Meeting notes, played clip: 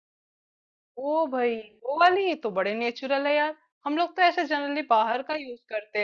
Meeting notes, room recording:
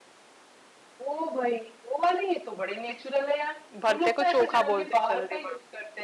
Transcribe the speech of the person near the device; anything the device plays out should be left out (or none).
भरते को चोखा बोलते हैं जल्दी